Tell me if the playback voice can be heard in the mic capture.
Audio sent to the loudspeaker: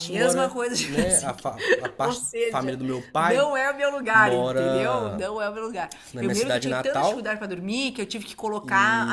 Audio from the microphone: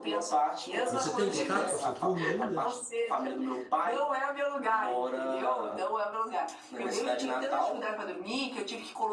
Yes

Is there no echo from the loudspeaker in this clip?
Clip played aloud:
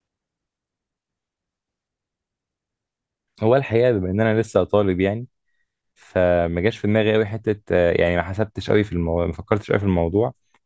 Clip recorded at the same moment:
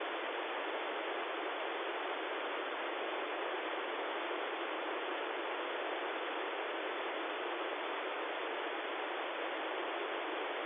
Yes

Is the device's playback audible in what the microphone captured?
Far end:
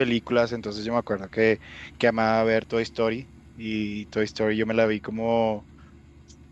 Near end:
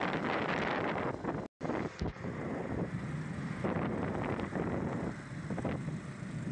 No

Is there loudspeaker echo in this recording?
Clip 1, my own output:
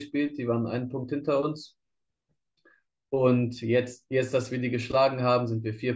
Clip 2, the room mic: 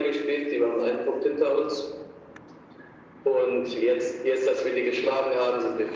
Yes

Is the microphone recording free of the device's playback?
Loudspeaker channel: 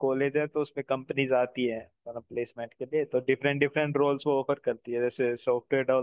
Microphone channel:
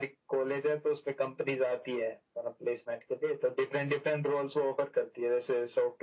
No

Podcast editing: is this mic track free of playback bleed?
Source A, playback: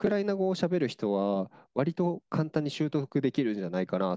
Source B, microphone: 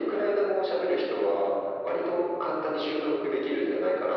No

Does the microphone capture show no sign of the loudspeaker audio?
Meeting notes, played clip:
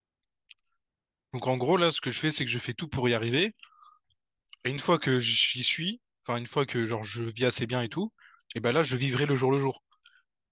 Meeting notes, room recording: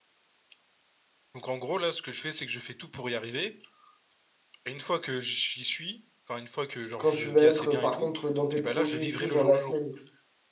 No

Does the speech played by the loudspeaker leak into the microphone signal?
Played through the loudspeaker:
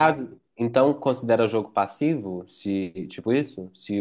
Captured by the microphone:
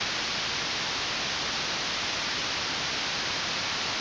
No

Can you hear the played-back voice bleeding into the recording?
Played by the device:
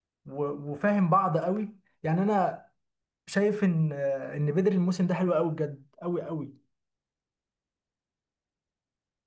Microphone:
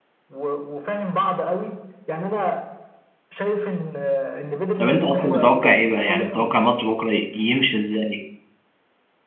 Yes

